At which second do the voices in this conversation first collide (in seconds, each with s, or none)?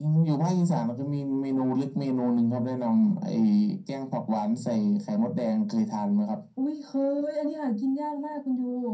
none